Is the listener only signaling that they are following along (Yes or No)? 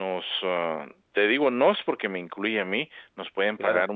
Yes